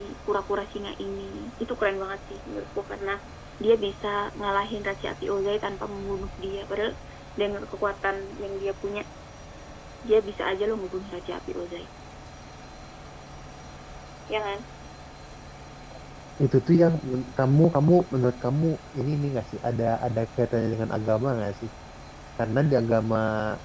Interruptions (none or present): none